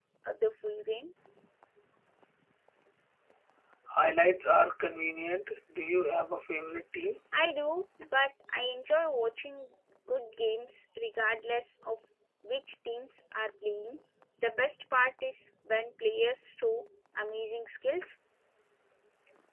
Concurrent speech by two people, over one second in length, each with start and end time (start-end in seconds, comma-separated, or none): none